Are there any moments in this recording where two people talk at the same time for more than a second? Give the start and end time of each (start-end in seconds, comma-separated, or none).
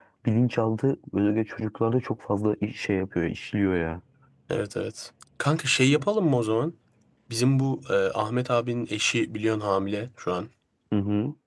none